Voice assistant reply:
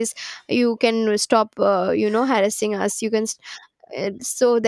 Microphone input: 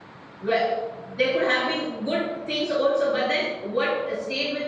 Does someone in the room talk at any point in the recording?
Yes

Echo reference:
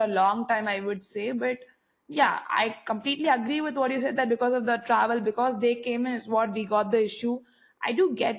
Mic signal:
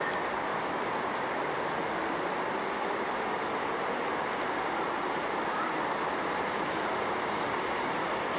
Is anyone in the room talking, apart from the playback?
No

